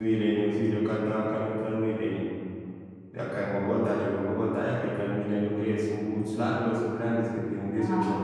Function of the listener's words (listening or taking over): listening